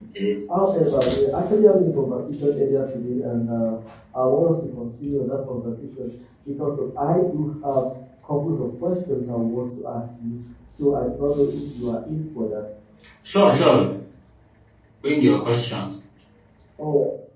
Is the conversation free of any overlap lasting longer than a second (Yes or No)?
Yes